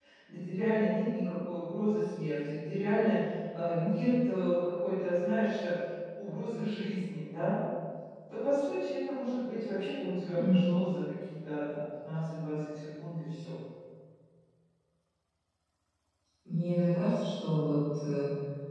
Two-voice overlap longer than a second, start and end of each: none

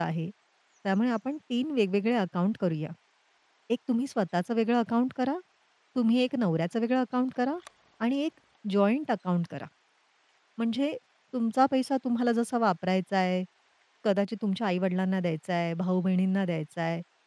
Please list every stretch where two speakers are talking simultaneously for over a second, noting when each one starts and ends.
none

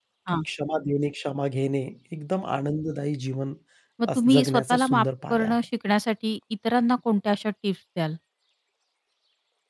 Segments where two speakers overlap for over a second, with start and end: 4.2-5.6

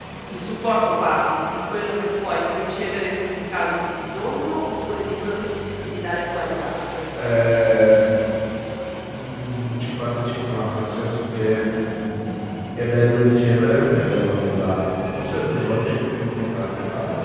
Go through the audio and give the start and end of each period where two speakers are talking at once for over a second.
none

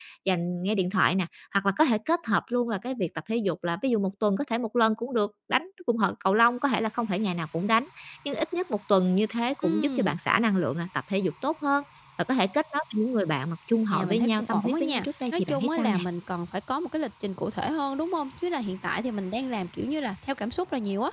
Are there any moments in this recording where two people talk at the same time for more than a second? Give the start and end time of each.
13.9-16.0

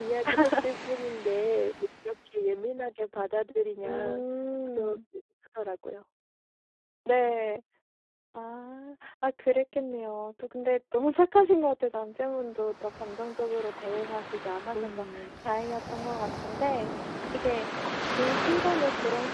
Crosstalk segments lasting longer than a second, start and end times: none

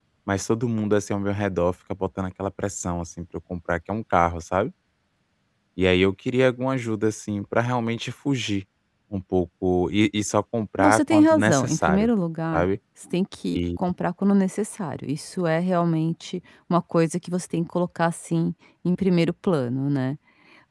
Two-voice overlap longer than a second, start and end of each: 10.8-12.1

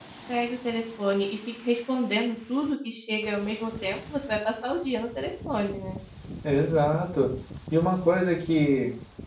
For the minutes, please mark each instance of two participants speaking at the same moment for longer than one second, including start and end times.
none

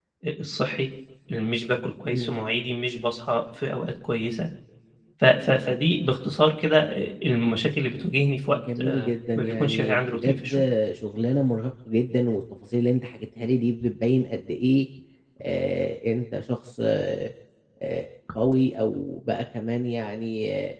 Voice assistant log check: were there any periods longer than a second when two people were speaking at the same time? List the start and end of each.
8.5-10.5

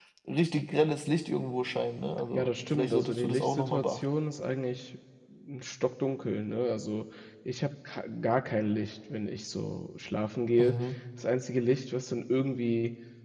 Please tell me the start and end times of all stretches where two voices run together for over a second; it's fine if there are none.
2.3-4.0

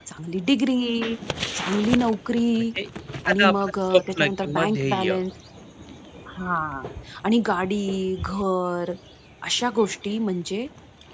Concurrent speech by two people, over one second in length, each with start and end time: 3.3-5.1

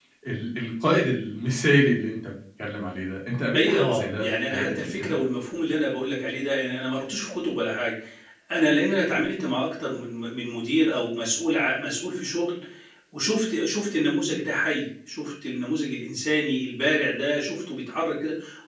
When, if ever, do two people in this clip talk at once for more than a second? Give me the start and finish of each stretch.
3.5-5.1

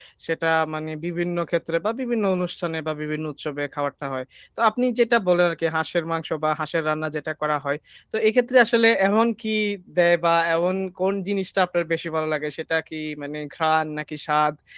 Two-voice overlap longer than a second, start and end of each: none

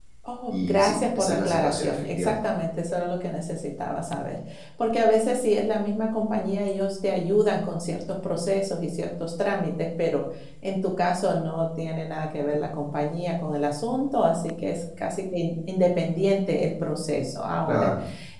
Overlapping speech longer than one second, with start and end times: 0.5-2.4

